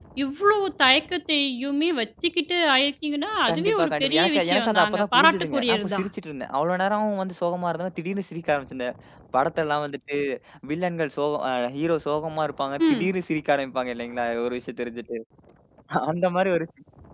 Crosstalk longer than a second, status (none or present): present